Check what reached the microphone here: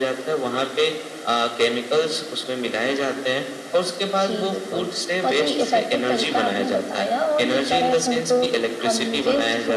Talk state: echo only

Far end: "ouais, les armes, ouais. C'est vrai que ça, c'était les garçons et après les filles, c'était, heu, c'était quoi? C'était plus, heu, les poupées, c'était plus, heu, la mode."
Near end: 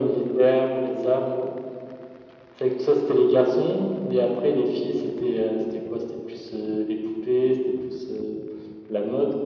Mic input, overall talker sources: echo only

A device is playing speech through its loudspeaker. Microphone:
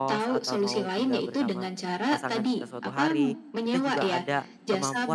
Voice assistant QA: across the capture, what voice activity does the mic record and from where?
both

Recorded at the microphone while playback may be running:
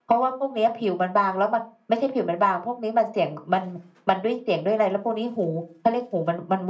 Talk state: echo only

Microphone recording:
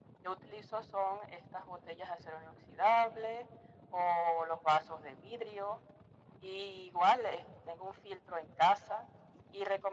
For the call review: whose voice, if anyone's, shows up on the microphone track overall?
echo only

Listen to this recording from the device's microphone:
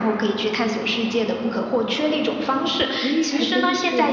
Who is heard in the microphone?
both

